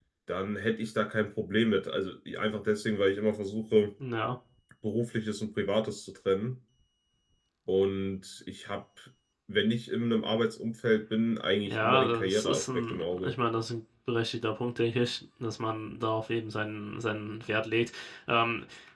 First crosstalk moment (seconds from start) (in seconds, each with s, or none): 11.6 s